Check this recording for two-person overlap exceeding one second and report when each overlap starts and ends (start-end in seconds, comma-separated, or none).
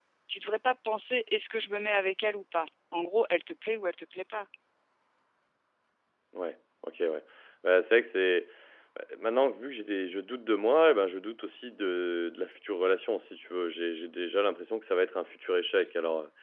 none